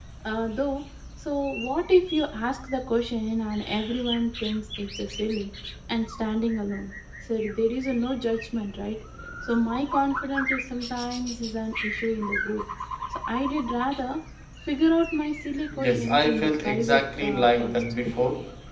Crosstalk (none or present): present